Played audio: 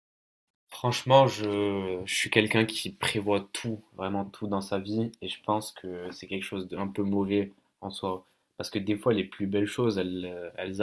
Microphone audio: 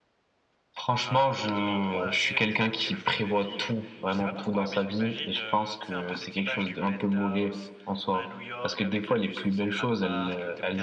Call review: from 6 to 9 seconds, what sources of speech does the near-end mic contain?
both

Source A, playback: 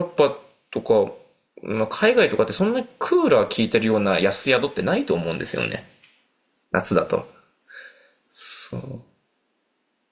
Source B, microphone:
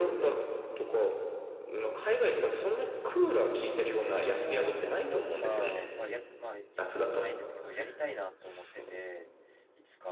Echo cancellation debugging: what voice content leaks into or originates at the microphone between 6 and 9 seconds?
both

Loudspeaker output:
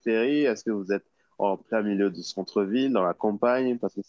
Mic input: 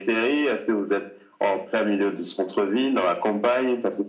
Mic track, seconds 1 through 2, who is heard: echo only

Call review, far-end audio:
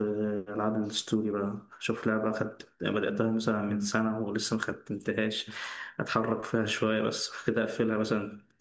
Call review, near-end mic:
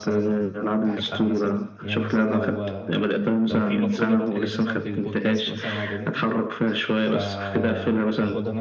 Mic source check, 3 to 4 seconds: both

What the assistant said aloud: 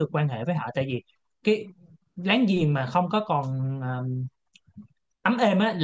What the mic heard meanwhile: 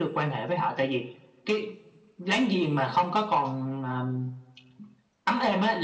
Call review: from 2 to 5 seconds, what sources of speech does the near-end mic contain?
echo only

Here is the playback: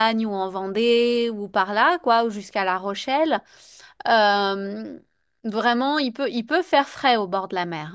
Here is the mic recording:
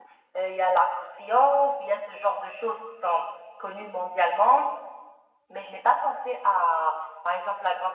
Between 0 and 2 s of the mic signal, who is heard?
user only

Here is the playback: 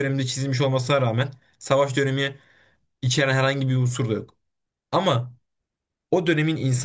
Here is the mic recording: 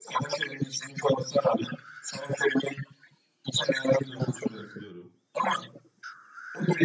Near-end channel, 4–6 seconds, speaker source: both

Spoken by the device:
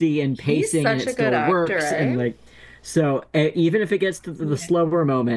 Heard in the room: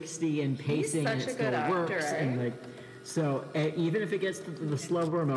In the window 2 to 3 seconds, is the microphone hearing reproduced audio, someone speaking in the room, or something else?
echo only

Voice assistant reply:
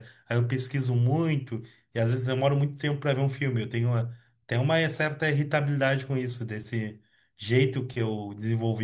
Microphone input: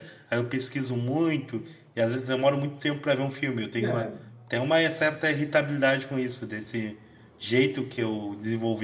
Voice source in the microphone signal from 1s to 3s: echo only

